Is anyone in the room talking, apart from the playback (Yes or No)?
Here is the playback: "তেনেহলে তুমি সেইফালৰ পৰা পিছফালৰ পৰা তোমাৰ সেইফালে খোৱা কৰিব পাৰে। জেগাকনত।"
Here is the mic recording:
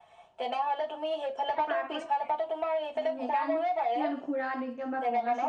Yes